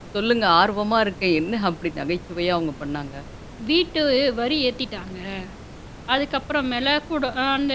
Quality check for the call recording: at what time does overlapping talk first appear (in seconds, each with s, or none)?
none